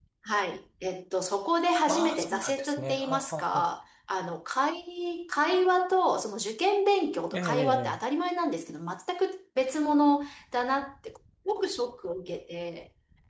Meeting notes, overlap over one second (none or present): present